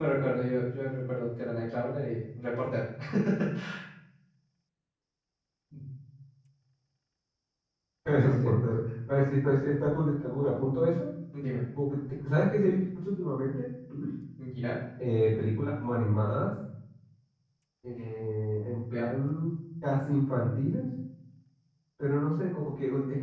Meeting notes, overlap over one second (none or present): none